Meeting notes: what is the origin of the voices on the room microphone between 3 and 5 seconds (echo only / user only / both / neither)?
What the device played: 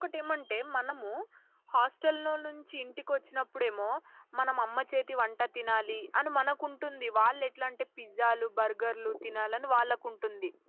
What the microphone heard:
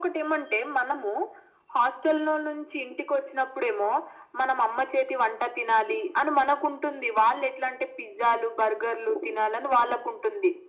echo only